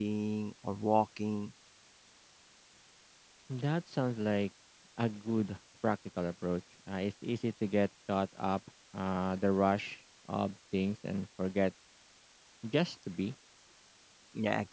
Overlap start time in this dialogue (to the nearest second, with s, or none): none